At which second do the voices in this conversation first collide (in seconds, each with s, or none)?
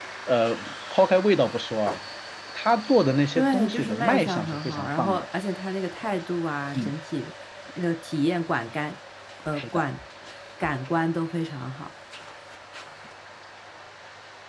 3.4 s